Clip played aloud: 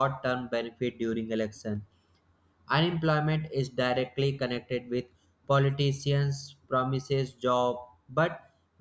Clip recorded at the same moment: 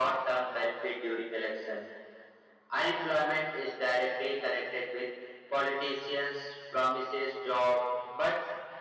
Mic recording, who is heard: echo only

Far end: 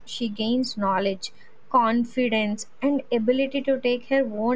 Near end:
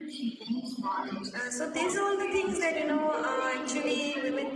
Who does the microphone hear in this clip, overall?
both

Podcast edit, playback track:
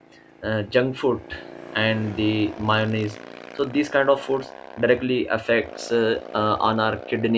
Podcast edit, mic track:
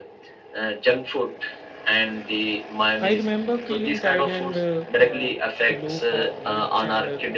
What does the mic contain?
both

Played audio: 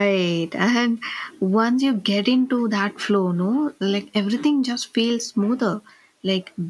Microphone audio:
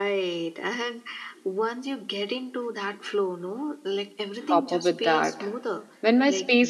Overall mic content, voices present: both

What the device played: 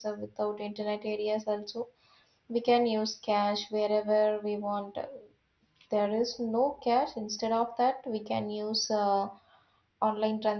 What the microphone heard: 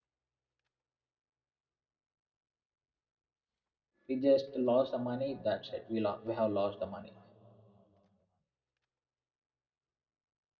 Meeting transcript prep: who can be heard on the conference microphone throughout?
user only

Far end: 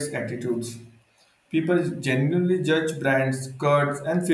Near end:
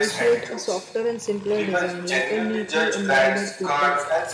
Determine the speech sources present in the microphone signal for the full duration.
both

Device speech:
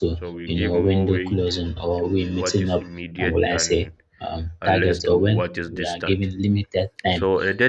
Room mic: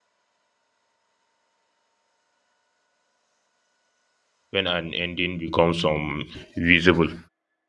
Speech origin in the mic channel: user only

